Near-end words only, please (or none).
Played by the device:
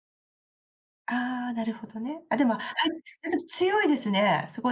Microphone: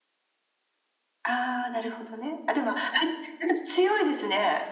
none